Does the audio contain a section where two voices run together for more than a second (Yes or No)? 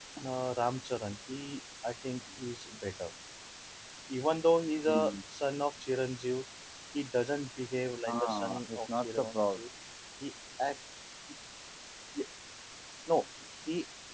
Yes